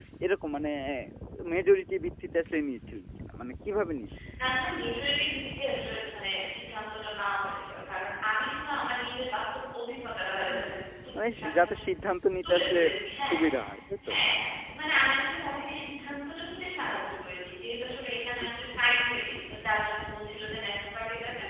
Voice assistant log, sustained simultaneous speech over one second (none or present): none